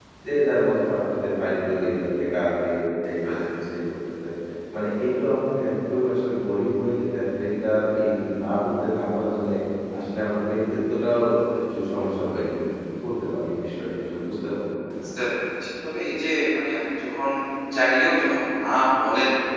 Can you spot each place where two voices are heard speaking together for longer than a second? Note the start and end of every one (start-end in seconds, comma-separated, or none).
none